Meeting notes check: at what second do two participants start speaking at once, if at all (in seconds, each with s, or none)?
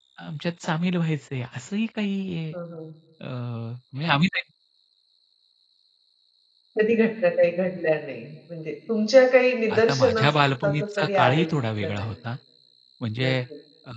9.7 s